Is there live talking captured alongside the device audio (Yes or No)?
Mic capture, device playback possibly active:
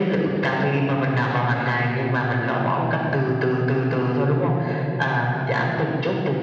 No